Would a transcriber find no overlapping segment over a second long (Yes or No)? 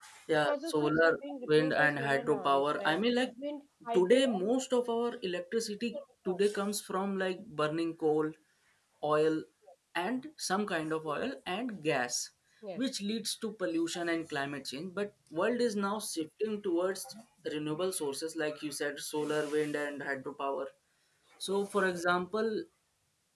No